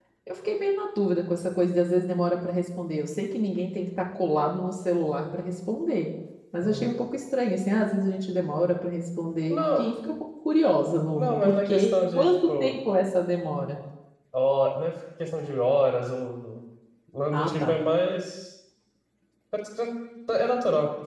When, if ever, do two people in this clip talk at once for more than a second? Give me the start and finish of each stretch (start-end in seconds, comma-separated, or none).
11.1-12.7